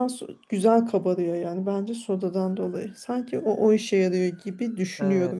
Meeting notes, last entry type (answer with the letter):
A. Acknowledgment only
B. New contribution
B